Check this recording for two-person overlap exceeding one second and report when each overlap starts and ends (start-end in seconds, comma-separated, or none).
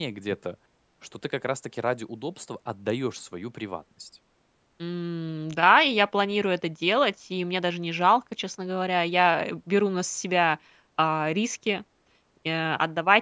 none